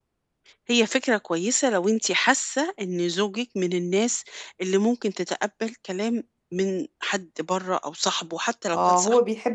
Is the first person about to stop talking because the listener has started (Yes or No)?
Yes